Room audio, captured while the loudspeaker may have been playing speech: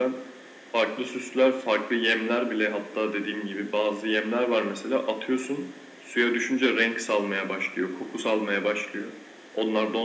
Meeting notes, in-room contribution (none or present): none